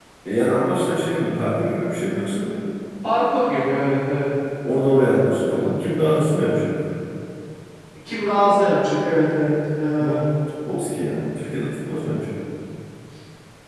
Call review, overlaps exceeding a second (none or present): none